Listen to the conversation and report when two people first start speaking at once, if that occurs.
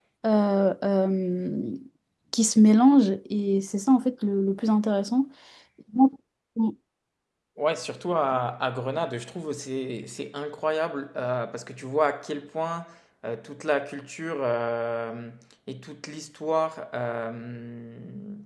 none

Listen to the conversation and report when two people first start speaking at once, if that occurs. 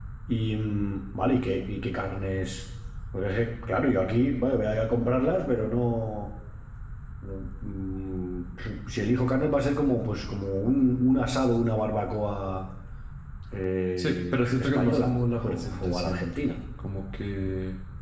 14.0 s

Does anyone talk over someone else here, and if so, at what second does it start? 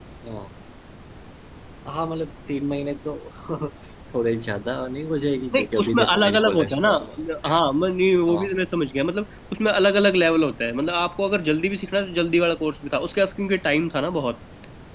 5.5 s

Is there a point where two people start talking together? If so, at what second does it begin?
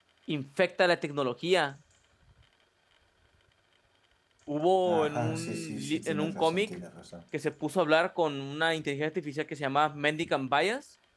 4.8 s

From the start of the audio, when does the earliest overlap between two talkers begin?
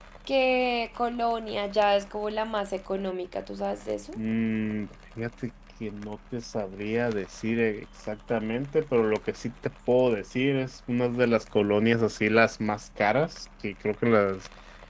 none

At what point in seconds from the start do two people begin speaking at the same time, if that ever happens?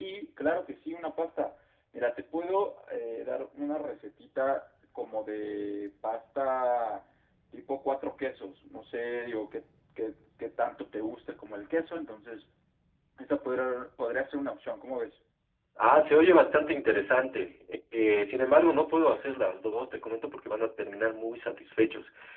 none

